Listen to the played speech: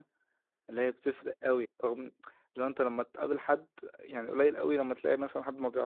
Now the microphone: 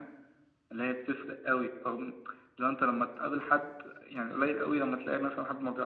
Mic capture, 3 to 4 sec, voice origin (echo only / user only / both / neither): echo only